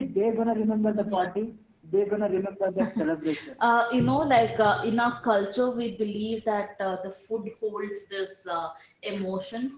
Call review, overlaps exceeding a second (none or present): none